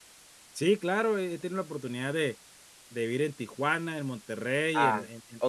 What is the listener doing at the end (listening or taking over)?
taking over